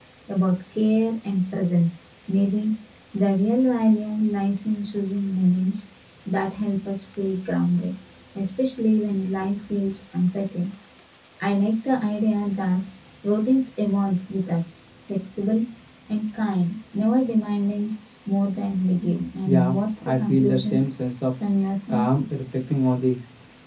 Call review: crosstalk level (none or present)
present